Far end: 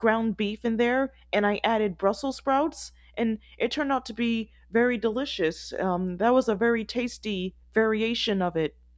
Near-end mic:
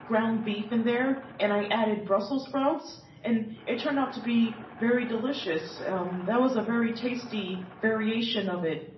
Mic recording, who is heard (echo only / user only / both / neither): echo only